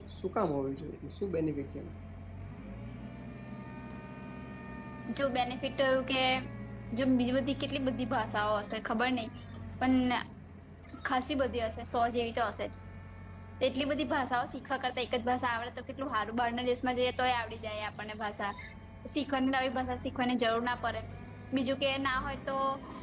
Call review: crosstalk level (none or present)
none